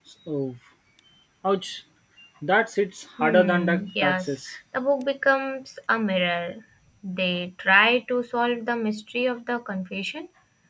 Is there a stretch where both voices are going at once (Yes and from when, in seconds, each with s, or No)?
Yes, from 3.2 s